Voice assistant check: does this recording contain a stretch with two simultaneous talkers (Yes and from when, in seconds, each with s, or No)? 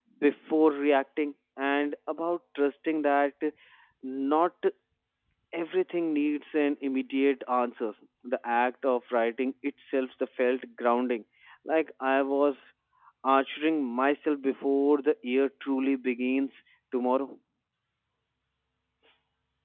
No